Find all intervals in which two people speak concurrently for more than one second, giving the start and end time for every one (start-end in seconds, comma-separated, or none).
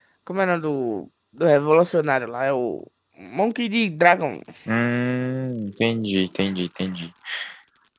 none